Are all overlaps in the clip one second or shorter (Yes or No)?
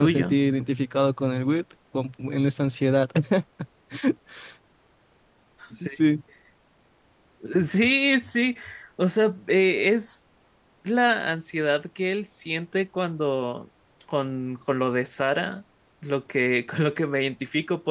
Yes